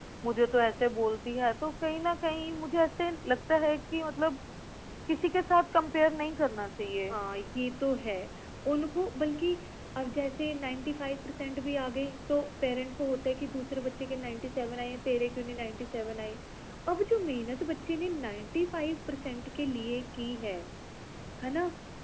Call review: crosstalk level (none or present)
none